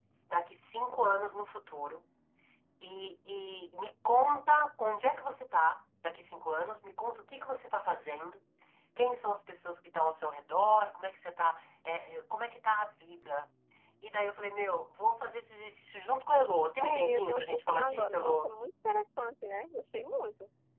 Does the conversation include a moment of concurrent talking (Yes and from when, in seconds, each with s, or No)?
Yes, from 16.8 s